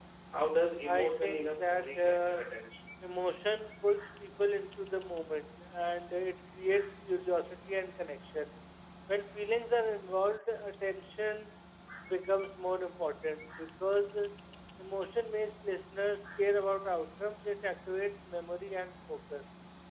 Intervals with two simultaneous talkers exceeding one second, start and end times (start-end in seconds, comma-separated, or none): 0.8-2.5